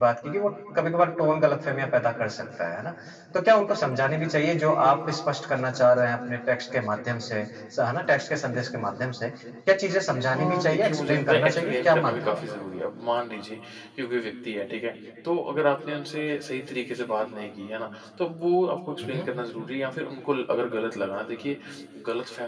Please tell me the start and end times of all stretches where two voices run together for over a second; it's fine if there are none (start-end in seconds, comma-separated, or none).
10.2-12.4